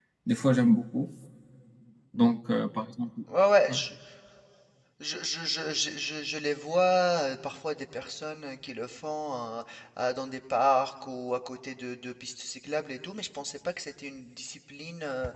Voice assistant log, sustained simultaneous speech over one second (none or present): none